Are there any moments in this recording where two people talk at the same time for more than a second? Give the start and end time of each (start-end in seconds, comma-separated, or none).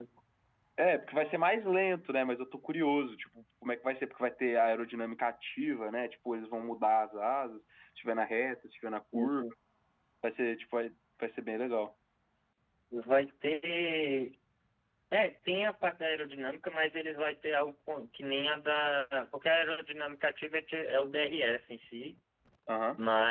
none